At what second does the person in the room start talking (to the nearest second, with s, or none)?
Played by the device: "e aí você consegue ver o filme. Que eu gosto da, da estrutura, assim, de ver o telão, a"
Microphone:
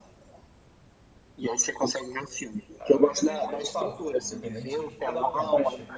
3 s